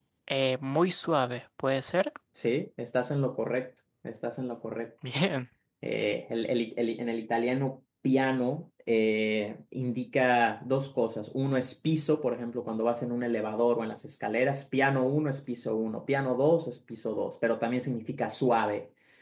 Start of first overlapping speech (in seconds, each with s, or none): none